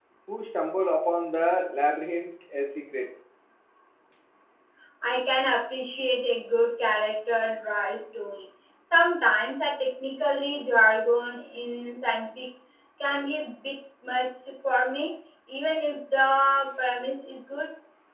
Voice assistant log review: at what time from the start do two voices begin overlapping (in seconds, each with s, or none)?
none